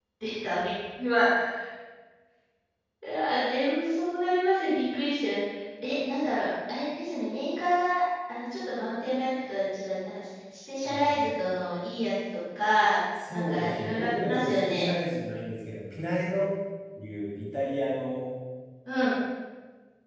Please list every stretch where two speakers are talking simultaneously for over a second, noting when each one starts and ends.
13.3-14.8

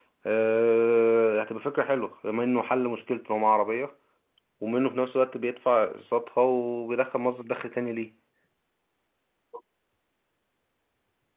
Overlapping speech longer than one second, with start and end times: none

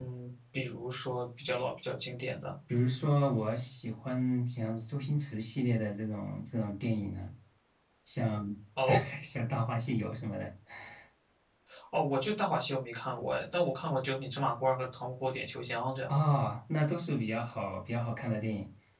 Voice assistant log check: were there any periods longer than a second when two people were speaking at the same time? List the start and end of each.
none

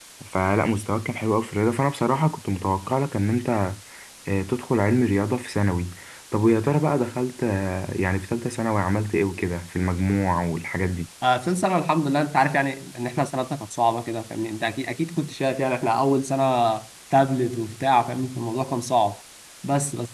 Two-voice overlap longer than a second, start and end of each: none

